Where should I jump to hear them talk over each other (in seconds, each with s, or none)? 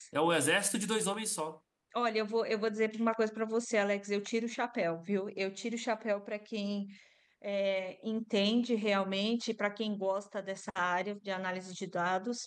none